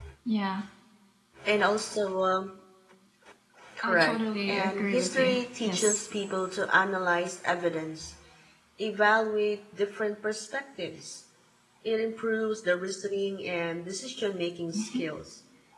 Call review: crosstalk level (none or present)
present